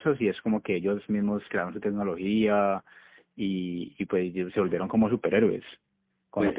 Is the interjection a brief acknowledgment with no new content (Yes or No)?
No